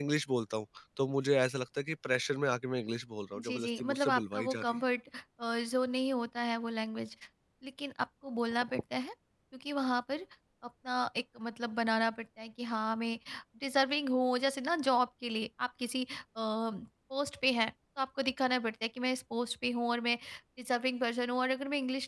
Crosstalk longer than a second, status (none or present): present